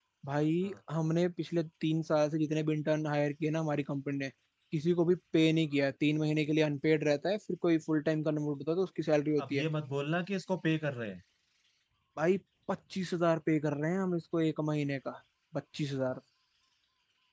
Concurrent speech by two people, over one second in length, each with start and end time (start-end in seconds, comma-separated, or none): none